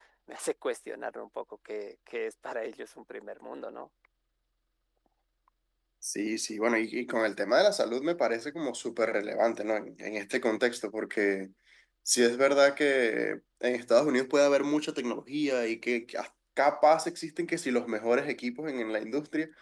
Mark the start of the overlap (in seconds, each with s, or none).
none